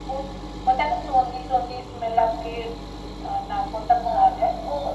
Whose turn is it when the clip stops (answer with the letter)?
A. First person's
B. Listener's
B